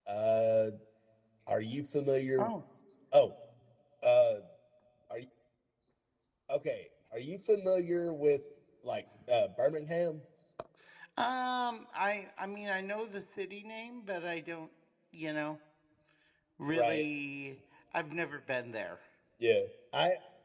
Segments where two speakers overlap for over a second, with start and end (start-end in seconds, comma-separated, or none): none